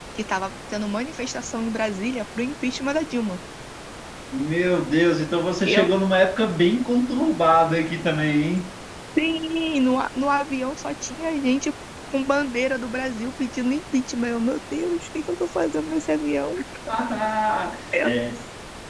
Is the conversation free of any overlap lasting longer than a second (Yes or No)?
Yes